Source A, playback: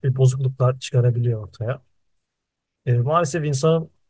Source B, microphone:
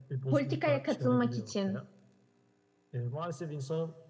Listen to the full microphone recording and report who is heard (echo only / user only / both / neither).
both